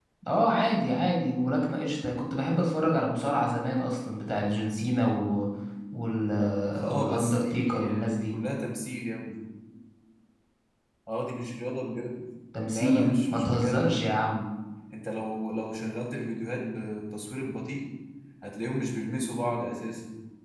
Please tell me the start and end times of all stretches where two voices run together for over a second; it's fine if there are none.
6.9-8.3, 12.6-14.1

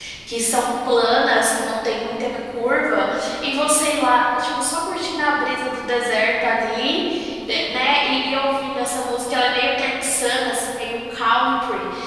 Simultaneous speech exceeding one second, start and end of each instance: none

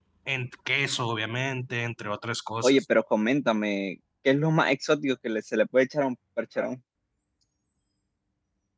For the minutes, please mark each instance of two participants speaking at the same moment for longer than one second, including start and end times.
none

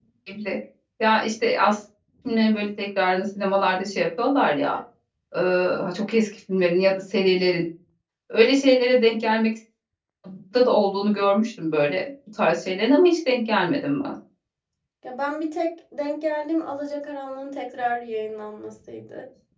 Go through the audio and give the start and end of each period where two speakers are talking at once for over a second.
none

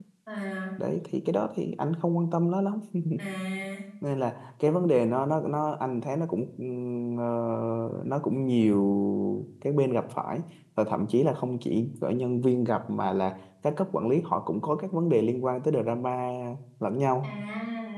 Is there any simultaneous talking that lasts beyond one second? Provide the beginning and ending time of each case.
none

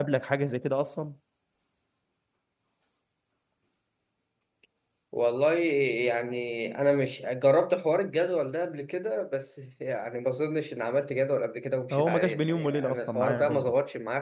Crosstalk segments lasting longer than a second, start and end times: 11.9-13.7

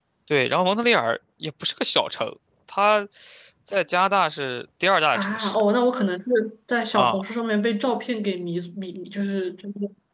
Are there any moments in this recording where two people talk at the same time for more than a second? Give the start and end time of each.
none

